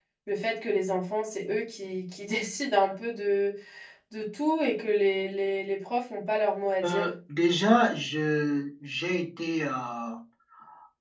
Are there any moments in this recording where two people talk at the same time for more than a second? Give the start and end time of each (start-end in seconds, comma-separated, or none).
none